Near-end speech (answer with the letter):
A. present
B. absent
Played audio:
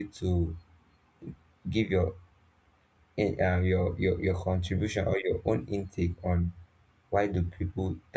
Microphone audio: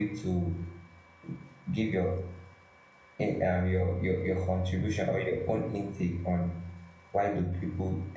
B